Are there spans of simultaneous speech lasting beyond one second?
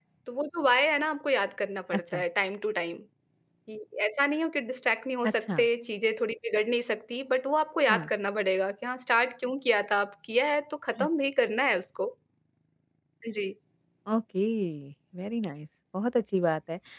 No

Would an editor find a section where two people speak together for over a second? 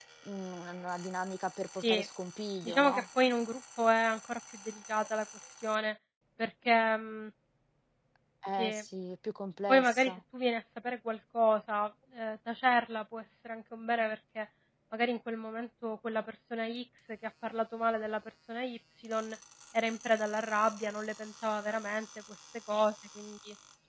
No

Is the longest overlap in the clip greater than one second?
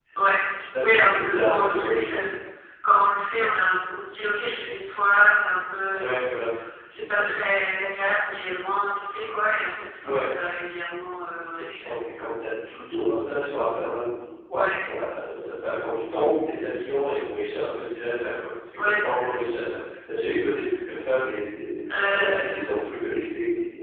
Yes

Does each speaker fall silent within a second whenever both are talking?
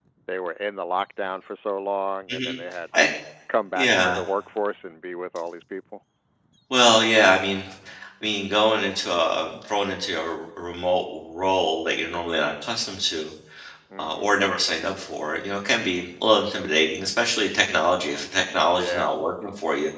Yes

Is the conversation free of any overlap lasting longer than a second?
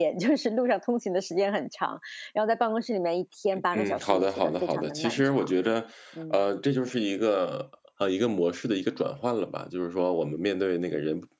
No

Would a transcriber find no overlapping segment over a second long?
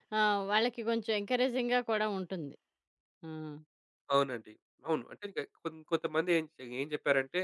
Yes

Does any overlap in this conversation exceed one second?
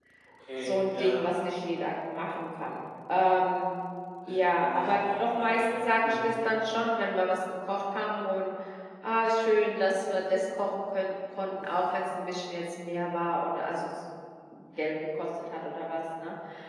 Yes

